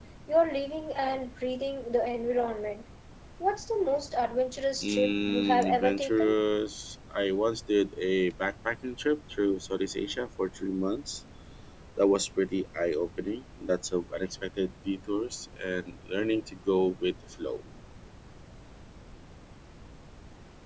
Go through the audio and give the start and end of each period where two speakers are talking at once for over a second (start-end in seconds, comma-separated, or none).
4.8-6.4